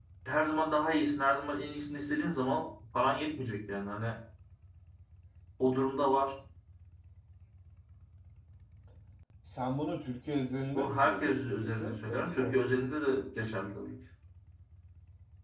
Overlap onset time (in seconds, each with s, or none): 10.7 s